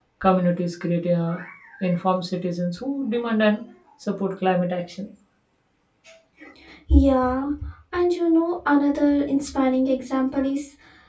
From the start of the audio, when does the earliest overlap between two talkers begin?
none

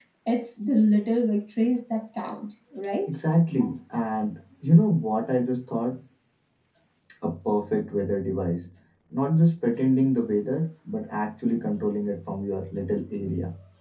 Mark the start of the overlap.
none

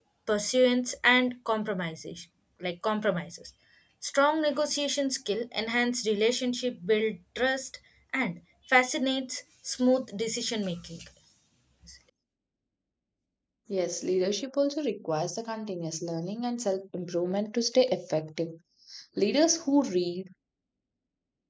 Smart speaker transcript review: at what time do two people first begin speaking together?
none

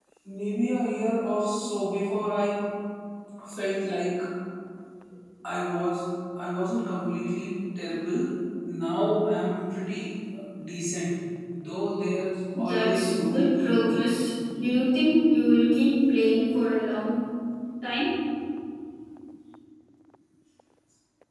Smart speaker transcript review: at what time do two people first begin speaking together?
12.6 s

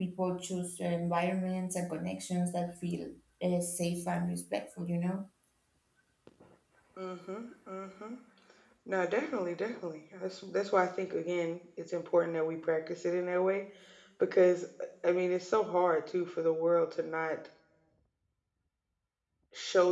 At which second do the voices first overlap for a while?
none

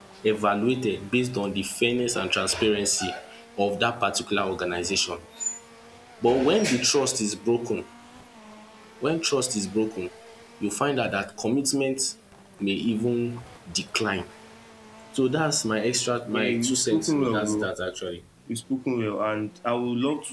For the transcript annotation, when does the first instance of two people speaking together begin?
16.3 s

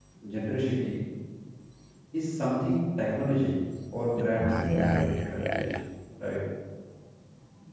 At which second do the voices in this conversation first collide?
4.2 s

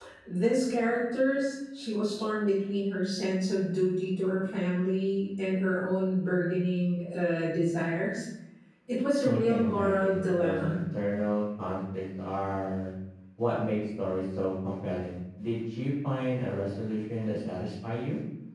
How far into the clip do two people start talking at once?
9.2 s

